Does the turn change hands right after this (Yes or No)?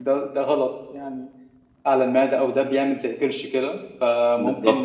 No